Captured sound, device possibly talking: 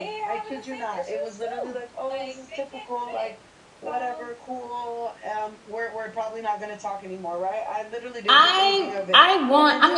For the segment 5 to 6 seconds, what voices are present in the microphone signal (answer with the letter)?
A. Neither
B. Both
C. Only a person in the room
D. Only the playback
D